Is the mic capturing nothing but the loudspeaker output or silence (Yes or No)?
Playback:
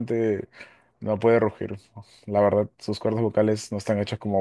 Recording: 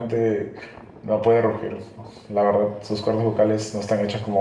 Yes